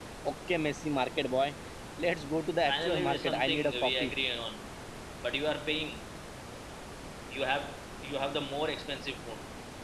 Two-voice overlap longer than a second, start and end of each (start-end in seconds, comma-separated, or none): 2.6-4.1